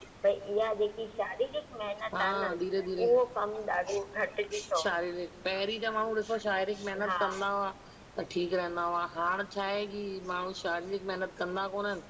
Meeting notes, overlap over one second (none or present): none